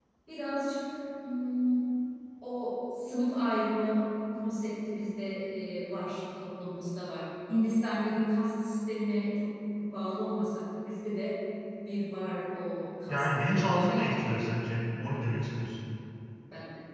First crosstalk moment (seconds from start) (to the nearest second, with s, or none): 13 s